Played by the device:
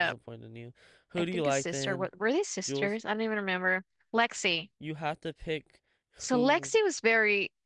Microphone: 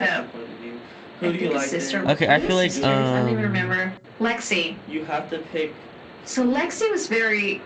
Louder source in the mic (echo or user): user